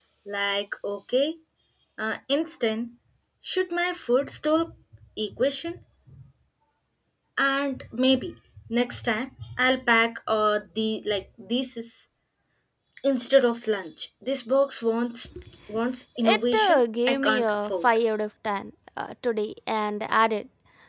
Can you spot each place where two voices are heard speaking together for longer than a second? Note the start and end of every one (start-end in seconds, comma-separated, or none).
16.2-17.9